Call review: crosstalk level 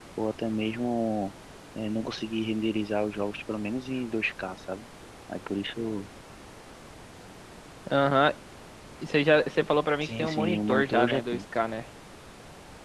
present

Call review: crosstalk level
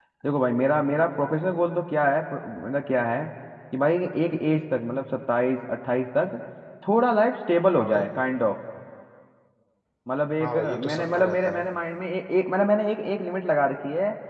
present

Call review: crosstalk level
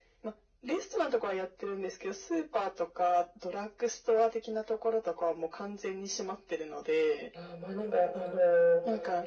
none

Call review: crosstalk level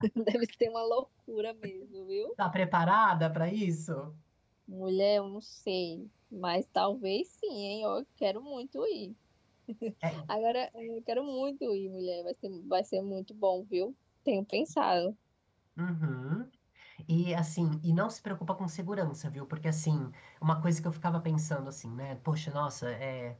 none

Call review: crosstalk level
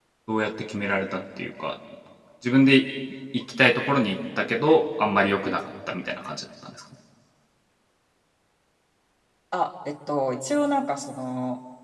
none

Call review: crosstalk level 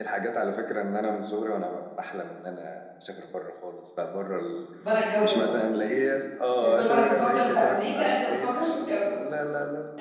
present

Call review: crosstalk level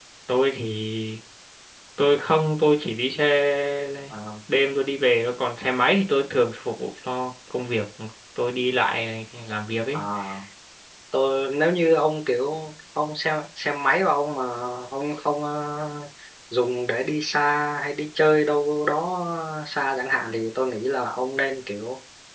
none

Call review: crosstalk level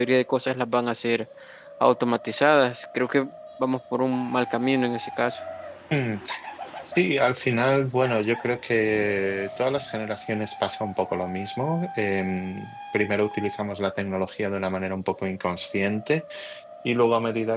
none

